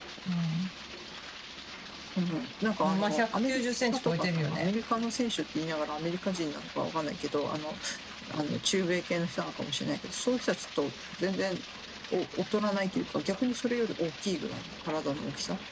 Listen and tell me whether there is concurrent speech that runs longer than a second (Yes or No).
Yes